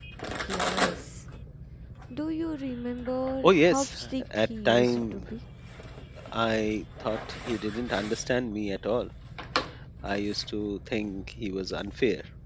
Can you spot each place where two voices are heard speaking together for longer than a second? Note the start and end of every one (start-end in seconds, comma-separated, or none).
3.4-5.2